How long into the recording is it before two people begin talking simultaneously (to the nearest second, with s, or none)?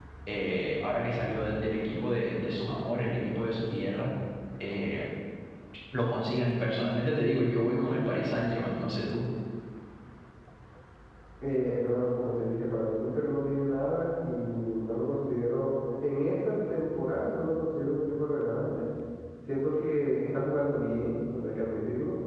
none